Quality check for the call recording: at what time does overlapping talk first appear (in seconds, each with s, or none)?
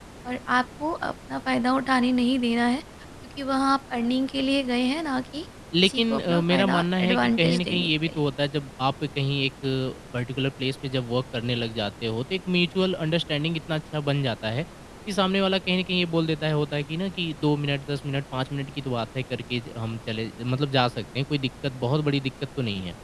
5.8 s